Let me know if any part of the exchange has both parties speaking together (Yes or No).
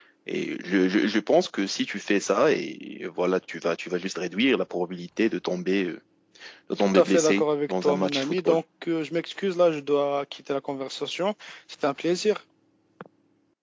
Yes